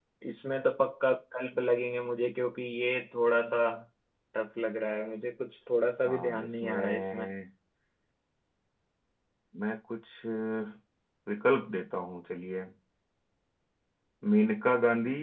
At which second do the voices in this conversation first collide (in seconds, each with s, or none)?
6.0 s